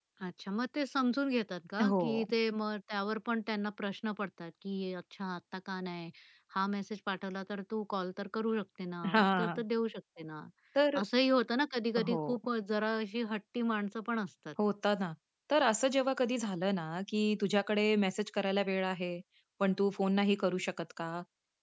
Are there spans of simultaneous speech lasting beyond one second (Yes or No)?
No